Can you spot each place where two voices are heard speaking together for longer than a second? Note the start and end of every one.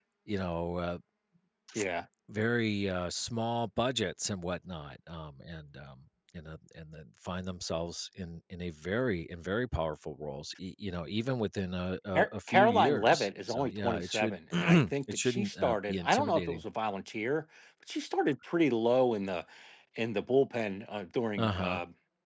12.2-16.6

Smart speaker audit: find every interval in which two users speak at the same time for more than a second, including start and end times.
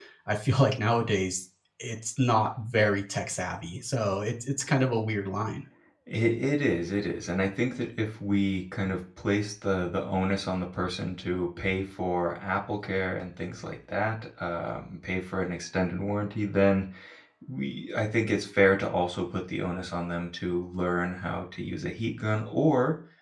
none

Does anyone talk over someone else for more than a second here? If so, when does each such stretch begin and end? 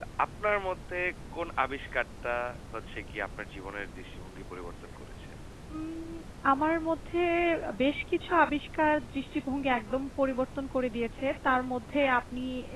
none

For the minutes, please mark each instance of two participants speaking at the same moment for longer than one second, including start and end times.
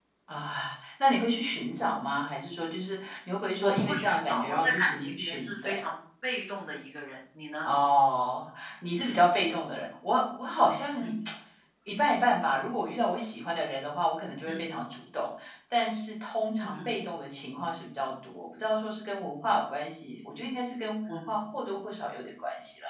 3.6-5.7

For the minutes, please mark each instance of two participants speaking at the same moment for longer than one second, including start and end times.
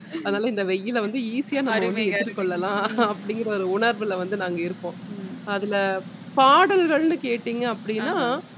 1.8-3.1

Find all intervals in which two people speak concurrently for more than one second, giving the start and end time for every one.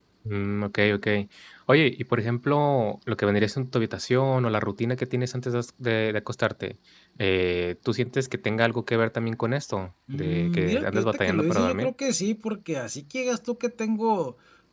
10.1-11.9

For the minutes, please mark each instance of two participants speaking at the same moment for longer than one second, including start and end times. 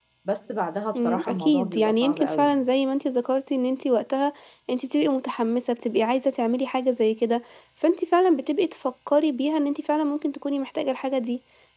1.0-2.6

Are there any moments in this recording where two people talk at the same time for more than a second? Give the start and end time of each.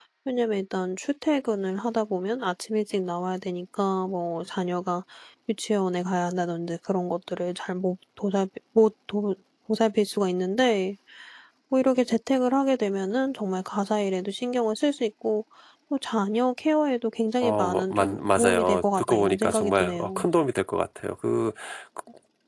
17.4-20.2

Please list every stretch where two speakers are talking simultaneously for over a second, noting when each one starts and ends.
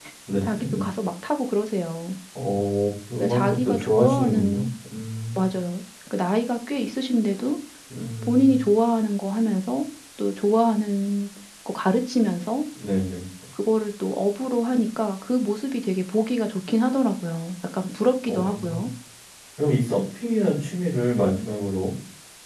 3.2-4.6

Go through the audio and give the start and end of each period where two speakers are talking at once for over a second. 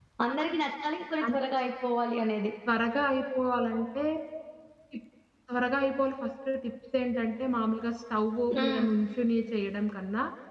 none

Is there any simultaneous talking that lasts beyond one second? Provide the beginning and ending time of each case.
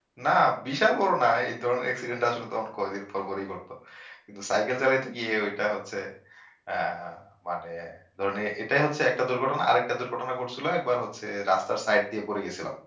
none

